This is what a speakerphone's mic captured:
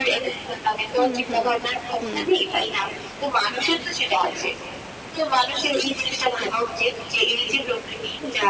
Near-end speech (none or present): present